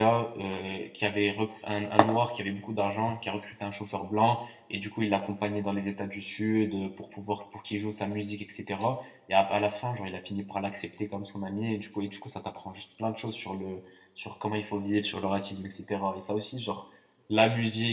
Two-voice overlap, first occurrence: none

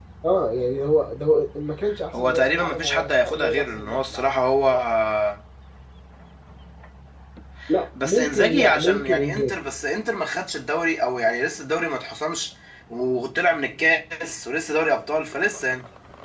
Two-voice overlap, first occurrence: 2.1 s

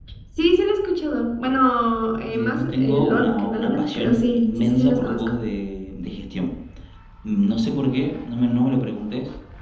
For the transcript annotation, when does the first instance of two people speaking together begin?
2.3 s

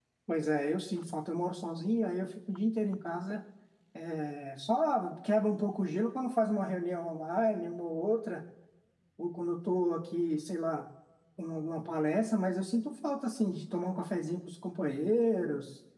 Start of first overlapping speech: none

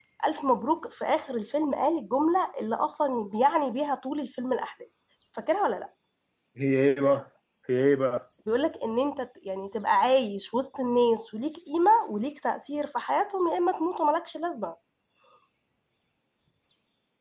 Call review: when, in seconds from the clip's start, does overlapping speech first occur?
none

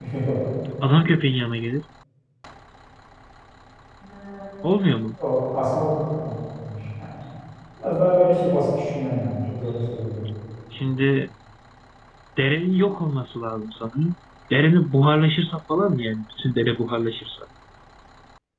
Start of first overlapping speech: none

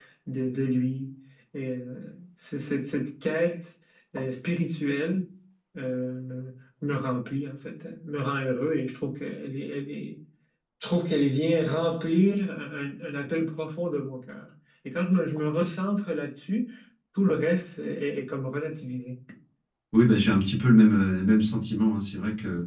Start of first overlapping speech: none

